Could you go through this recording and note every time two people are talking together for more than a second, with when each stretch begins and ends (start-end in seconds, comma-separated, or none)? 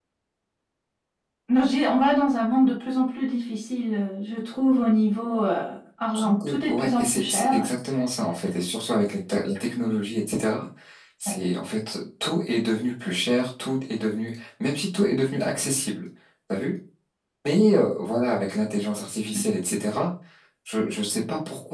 6.1-7.6